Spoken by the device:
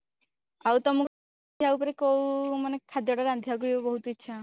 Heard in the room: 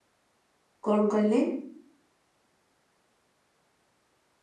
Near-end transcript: କଣ କହିଲେ?

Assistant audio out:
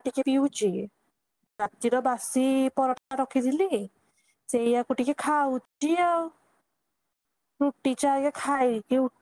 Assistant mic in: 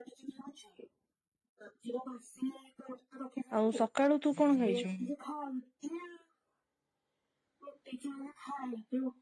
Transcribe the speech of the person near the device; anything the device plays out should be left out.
ଆଉ ସକାଳୁ ତୁ କଣ ଖାଇଛୁ?

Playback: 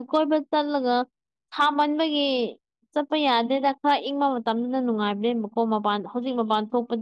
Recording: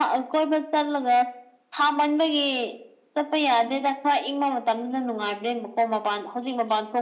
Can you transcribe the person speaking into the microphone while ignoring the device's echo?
none

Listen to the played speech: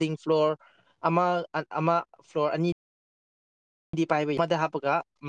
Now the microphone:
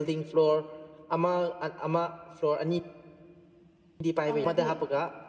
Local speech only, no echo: ꯐꯪꯉꯗꯤ

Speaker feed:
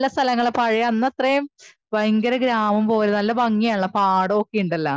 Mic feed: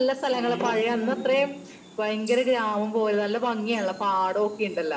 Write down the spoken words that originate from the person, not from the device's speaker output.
അങ്ങനെ മറക്കൂലമ്മ

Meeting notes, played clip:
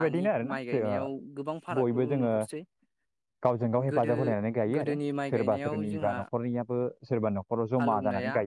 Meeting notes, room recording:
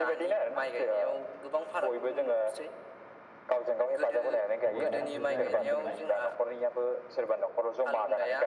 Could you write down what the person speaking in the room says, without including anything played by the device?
बबेबा ओ जायगानिफ्राय

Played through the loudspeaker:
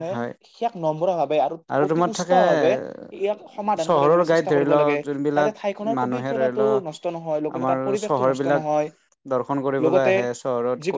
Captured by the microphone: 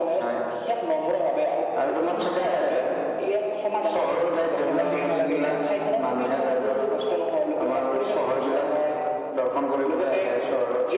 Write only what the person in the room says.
হৰণ দিব নালাগে ইয়াত

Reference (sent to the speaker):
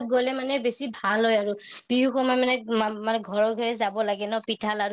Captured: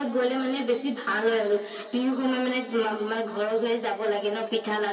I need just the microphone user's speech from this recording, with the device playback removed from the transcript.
none

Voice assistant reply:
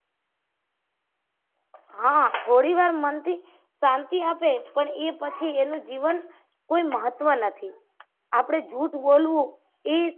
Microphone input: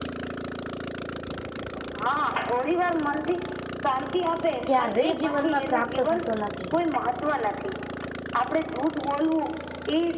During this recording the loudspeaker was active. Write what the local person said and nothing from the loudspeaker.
ક્યારે જીવનમાં પ્રાપ્ત થતો નથી.

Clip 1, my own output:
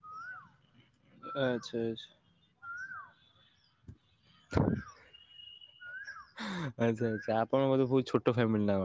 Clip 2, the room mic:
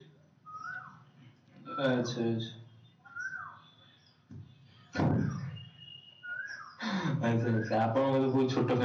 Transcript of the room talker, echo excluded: none

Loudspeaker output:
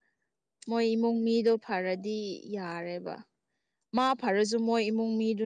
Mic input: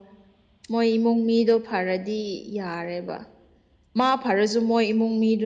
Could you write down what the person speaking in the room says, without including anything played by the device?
none

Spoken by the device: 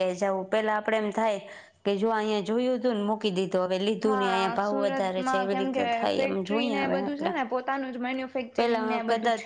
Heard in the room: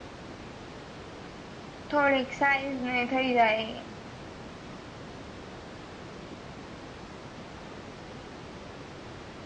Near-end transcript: થોડીક સાઈઝ ને થઈ જાય

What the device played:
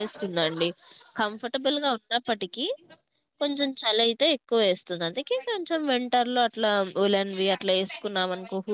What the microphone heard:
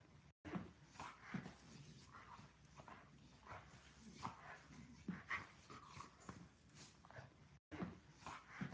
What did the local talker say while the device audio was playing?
none

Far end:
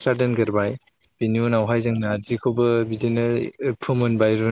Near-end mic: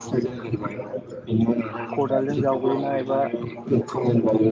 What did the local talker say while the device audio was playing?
खदालजों जावबोयोना एबा

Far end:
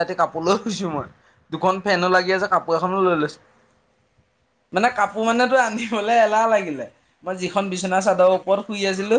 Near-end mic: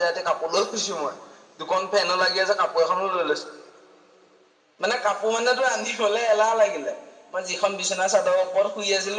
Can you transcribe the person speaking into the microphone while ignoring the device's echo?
none

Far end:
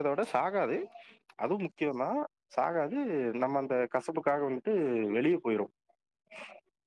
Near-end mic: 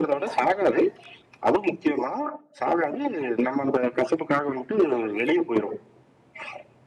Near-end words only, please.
none

